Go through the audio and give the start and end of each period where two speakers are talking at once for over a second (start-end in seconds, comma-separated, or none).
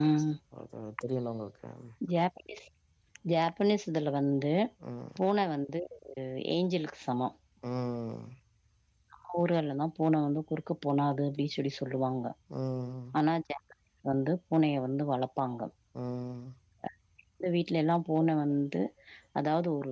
none